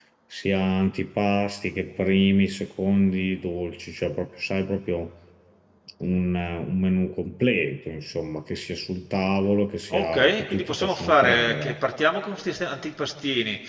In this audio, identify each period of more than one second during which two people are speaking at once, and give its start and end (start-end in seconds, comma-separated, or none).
9.9-11.8